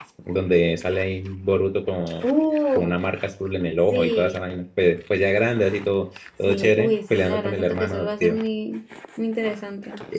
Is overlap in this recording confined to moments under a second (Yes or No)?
No